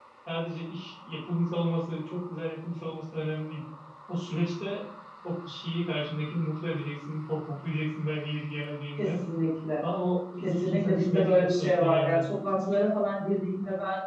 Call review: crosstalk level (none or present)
present